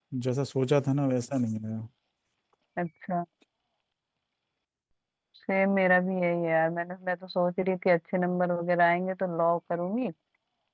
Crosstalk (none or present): none